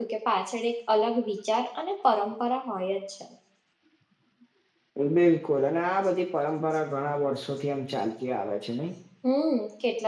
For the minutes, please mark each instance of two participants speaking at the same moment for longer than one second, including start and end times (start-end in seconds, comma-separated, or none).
none